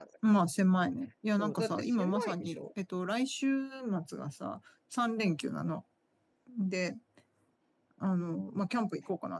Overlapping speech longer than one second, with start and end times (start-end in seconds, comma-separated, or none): 1.4-2.6